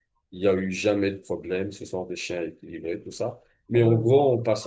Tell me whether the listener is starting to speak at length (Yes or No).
No